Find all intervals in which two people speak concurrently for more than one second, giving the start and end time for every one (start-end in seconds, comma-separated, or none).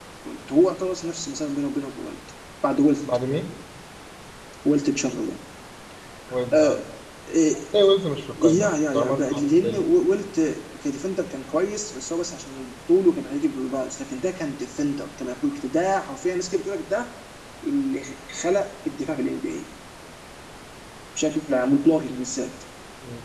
8.4-9.8